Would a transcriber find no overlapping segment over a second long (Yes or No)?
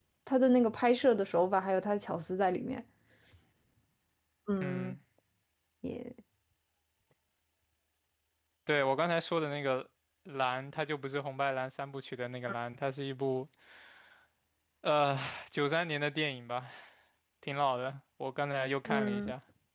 Yes